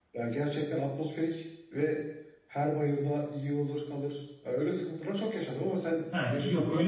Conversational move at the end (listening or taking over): taking over